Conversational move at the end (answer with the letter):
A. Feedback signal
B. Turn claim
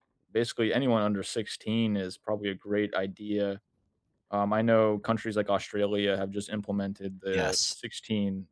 A